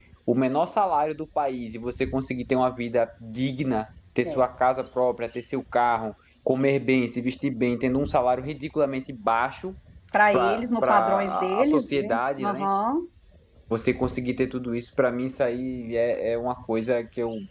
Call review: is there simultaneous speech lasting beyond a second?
Yes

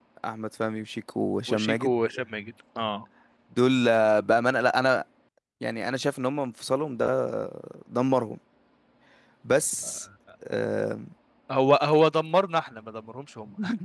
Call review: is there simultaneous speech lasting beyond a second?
No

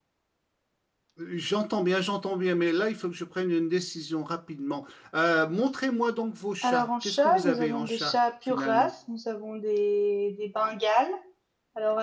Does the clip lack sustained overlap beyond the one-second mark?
No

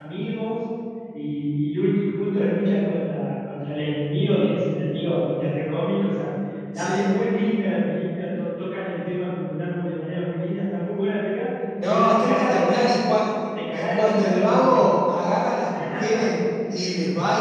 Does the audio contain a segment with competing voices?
Yes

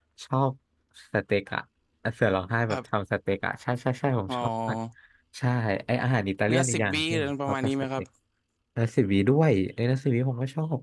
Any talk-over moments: Yes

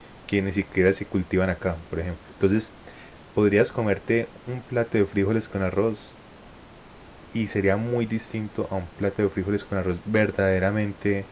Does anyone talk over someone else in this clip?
No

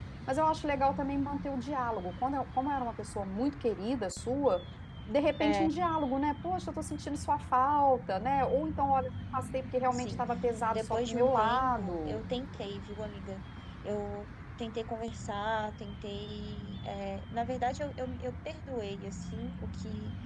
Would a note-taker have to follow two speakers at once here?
Yes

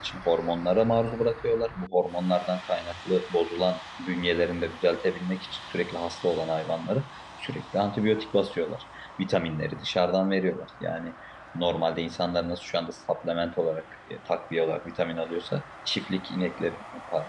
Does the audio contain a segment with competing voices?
No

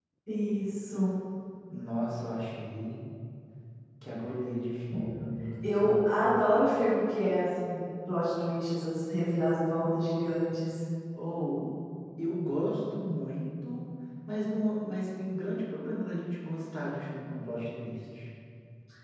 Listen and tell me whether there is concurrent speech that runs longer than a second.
No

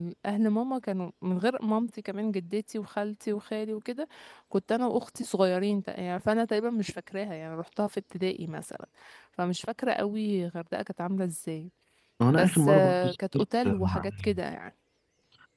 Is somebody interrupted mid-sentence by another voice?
Yes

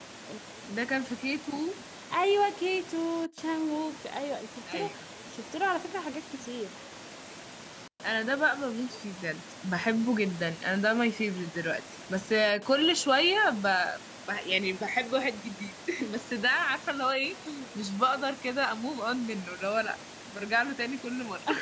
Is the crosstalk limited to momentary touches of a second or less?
Yes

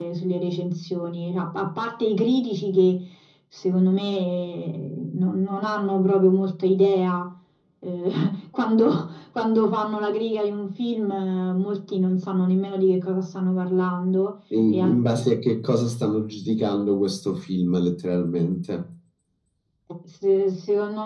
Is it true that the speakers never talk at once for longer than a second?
Yes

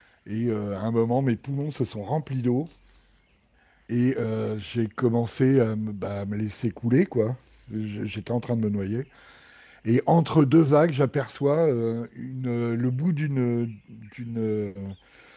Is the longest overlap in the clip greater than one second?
No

